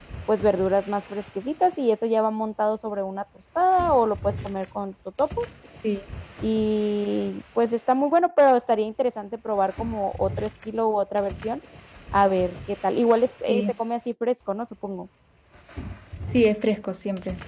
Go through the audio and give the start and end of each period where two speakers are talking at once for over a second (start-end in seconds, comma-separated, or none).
none